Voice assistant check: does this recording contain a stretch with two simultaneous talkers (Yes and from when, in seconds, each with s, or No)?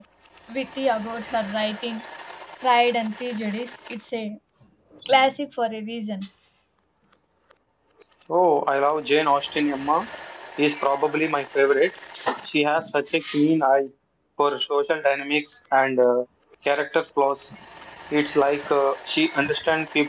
No